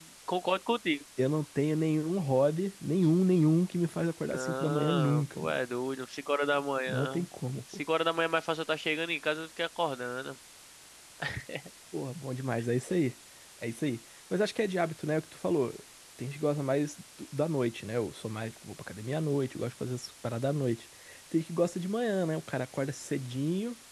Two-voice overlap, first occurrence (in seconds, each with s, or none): 4.3 s